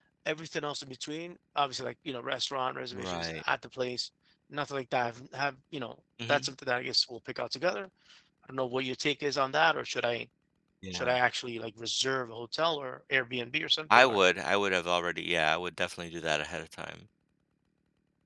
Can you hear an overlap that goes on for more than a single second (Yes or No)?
No